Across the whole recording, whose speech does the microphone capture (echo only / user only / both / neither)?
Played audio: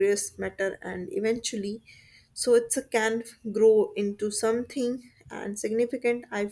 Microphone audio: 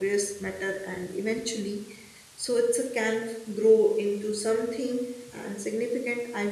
echo only